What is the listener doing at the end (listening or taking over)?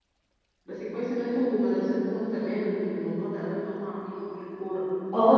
taking over